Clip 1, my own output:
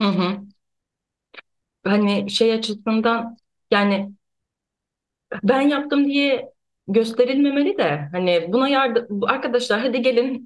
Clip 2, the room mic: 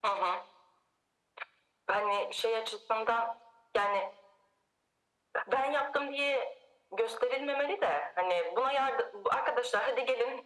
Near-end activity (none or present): none